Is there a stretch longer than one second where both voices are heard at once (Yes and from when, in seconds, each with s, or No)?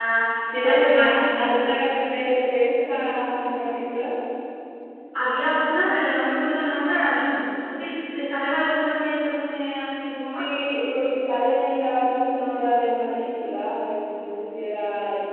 Yes, from 0.6 s